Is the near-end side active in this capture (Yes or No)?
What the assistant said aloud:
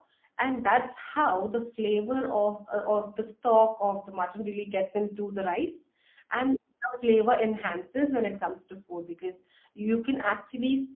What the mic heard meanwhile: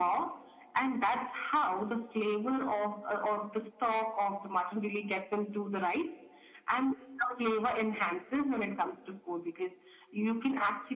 No